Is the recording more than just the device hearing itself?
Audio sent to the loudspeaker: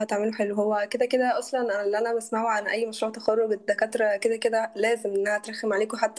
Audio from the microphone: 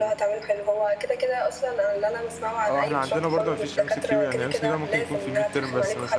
Yes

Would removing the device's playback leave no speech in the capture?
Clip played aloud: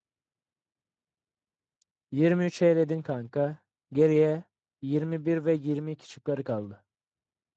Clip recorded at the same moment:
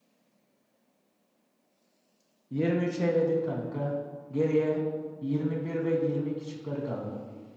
Yes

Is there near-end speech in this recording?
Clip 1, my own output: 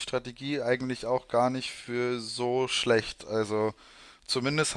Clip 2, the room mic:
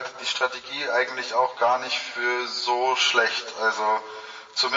No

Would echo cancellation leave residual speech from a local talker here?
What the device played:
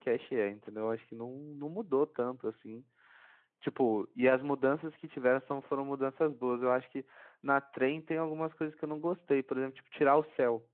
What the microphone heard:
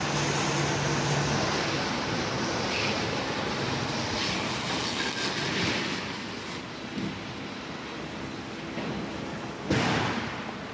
No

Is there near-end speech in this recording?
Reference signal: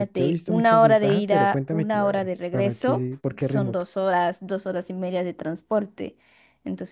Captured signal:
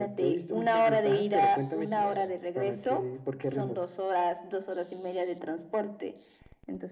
No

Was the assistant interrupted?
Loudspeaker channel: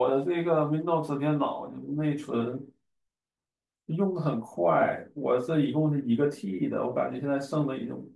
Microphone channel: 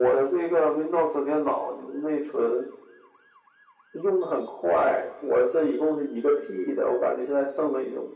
No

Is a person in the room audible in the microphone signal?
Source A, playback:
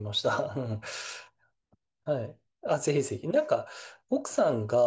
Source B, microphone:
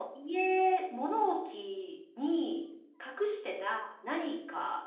Yes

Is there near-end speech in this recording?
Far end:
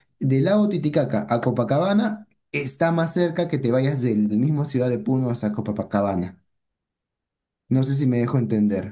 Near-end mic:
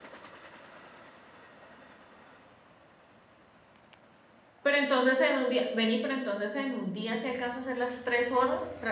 Yes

